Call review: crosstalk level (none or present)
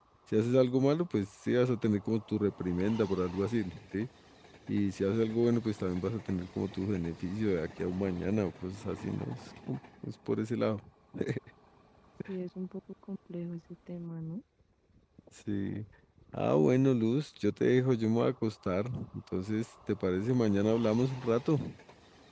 none